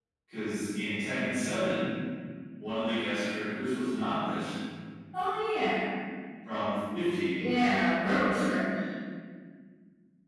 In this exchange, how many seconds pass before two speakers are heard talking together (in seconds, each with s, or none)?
none